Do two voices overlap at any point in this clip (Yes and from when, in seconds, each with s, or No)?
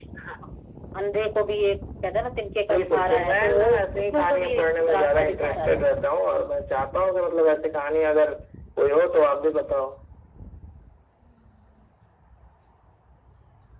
Yes, from 2.6 s